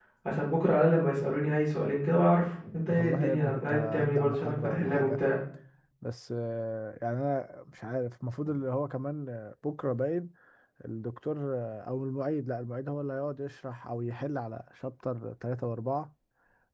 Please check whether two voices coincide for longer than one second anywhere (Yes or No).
Yes